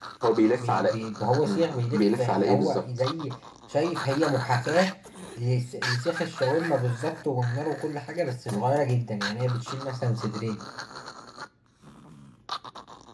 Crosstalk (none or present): present